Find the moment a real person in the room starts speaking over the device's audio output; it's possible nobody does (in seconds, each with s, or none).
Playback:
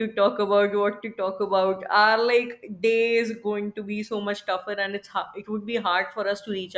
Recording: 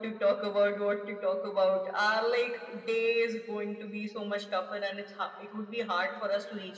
none